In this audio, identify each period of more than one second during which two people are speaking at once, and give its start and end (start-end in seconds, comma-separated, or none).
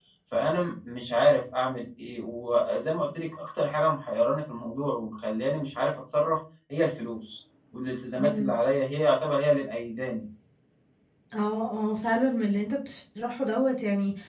none